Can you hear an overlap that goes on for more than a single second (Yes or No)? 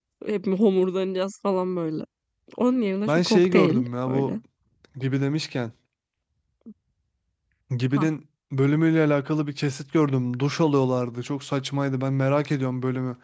Yes